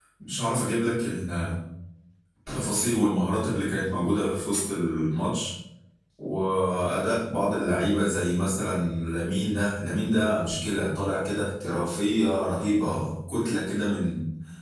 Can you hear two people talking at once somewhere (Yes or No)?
No